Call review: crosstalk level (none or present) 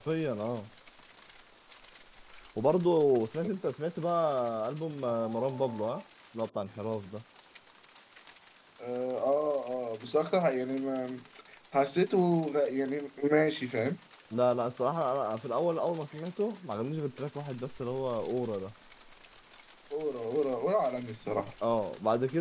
none